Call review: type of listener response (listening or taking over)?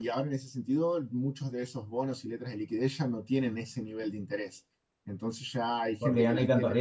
taking over